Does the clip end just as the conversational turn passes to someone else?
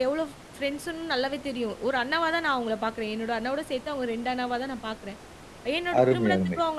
No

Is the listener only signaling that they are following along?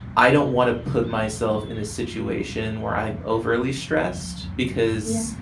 Yes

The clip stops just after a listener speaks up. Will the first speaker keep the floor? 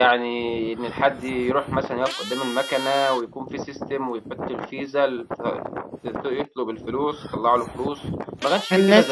No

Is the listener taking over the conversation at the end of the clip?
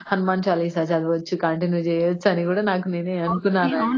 Yes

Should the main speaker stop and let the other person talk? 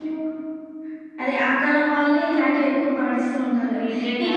No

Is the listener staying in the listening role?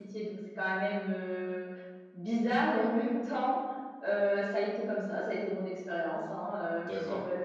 Yes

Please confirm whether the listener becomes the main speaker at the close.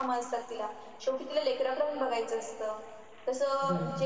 No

